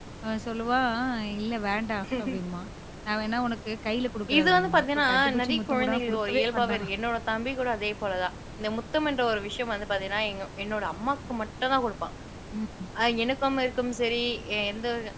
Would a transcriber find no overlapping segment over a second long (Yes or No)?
No